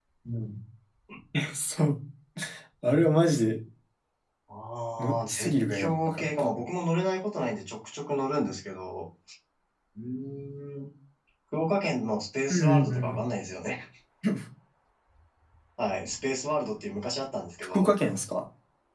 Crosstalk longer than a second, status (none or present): present